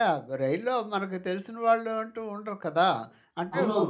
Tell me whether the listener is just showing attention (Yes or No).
No